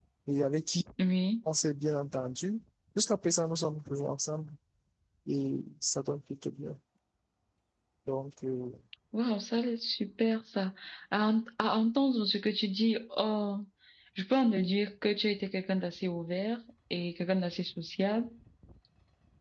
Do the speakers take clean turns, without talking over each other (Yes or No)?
Yes